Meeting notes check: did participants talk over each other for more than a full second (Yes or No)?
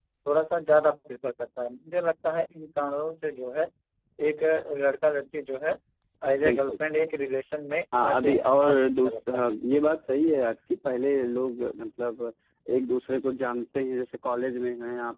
Yes